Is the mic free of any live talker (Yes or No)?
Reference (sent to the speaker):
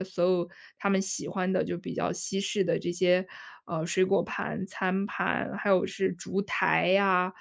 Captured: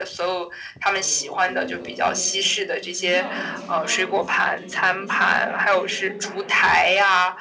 No